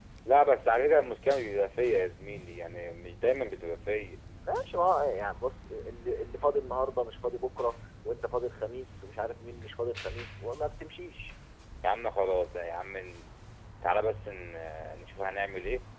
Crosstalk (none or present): none